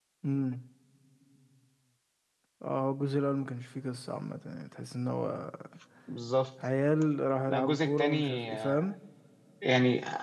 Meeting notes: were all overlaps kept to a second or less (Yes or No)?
No